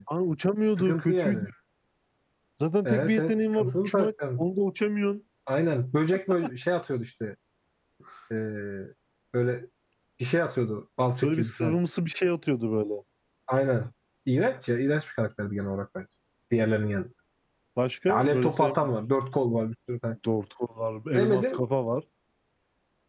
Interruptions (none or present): present